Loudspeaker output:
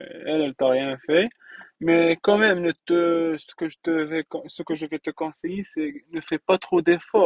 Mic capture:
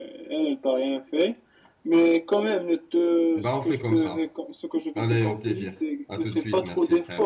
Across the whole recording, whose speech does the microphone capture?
both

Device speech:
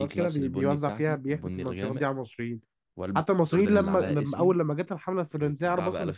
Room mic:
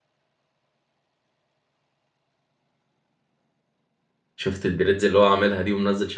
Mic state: user only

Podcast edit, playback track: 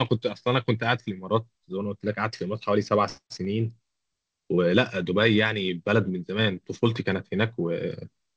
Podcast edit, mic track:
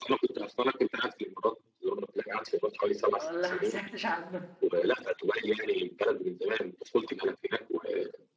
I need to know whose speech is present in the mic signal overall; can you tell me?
both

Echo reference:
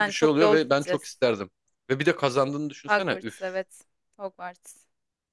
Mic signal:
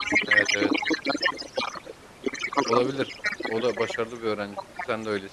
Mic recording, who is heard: both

